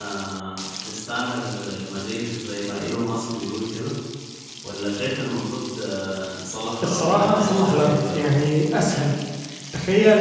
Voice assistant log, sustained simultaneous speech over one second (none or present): present